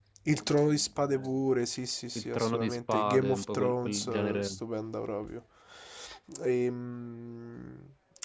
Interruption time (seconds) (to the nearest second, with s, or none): 2 s